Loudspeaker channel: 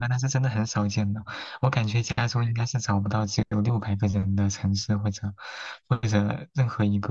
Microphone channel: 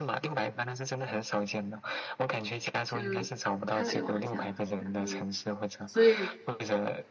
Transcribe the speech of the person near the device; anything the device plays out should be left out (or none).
就开了个玩笑，然后所以